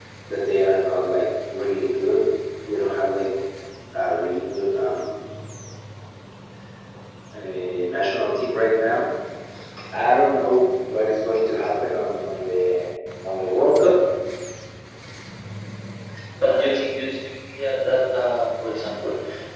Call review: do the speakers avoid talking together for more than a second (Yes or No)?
Yes